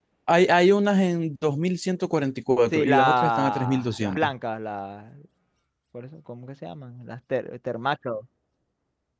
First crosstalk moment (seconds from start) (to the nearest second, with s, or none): 3 s